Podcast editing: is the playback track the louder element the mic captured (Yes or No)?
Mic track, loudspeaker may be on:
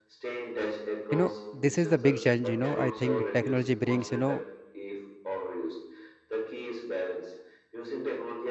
No